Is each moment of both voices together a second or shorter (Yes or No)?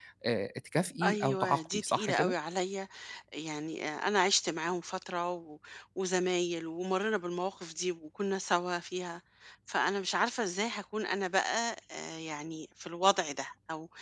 No